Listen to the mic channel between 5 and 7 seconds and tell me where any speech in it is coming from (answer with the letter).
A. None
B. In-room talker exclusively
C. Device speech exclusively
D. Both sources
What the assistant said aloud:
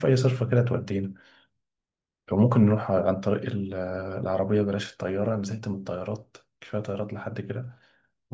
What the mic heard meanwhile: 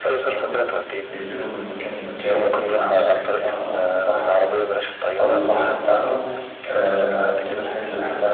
D